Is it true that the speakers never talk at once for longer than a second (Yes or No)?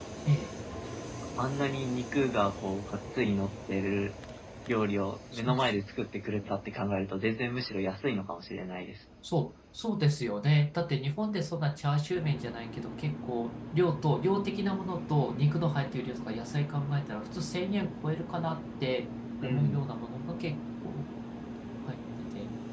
Yes